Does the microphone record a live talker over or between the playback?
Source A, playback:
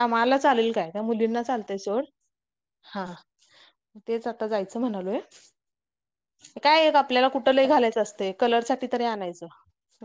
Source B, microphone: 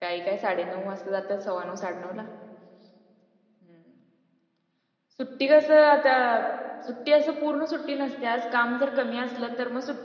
Yes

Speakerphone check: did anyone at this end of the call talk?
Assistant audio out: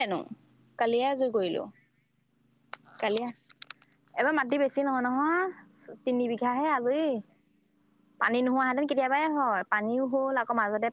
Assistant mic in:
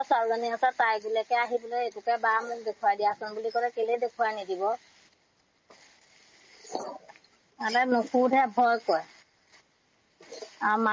Yes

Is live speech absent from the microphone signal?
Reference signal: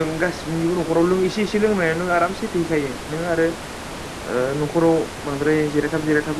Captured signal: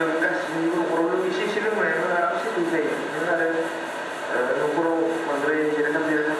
Yes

